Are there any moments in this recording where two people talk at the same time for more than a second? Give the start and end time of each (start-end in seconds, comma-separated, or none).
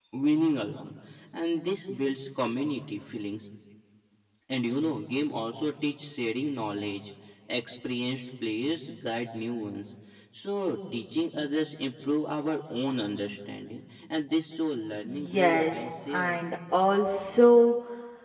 15.0-16.4